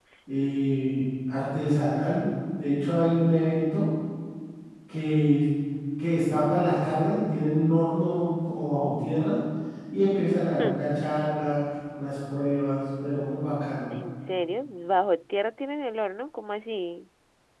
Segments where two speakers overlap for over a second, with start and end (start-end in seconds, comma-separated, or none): none